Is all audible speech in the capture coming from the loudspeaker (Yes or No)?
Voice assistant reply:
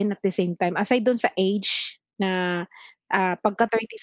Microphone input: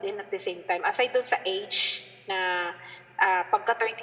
Yes